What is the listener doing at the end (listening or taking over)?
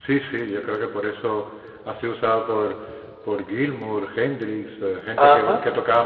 listening